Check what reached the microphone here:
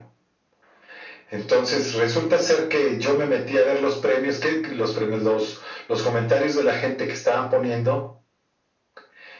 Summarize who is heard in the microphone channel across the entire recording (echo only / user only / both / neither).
echo only